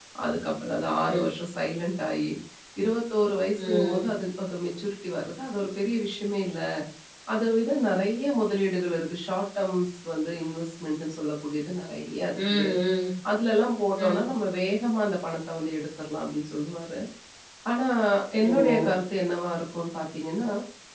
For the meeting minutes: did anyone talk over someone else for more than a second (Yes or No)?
No